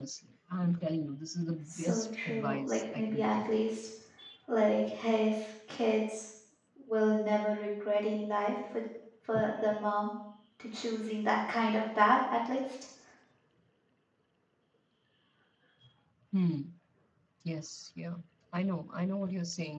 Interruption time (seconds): 1.7 s

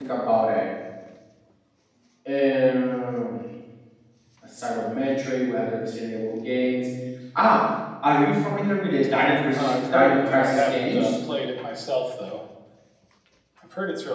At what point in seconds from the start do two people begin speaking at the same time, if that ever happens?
9.6 s

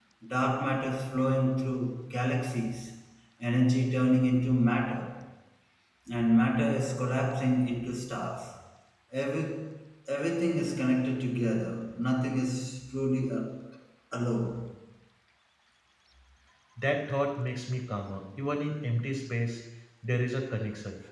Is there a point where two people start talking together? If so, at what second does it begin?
none

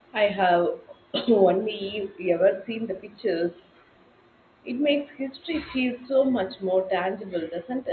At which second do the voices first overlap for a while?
none

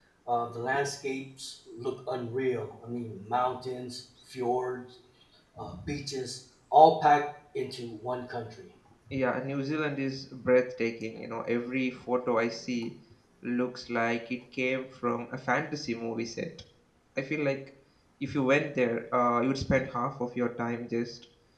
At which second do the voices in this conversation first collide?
none

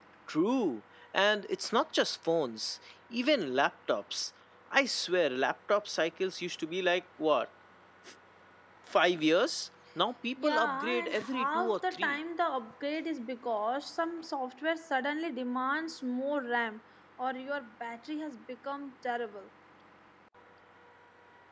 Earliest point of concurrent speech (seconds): 10.4 s

